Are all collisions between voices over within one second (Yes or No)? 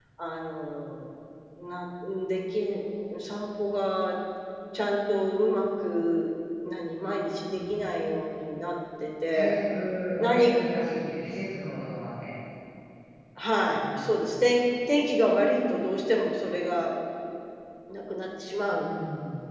Yes